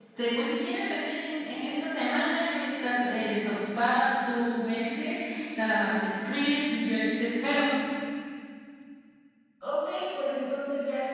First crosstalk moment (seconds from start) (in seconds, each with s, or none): none